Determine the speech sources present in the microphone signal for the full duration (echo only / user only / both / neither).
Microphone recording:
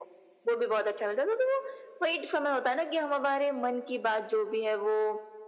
echo only